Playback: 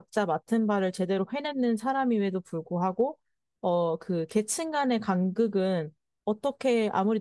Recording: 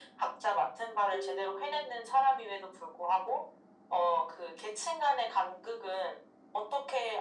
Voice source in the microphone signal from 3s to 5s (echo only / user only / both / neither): echo only